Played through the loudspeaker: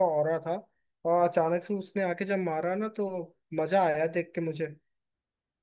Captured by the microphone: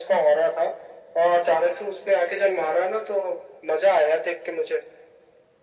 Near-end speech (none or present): none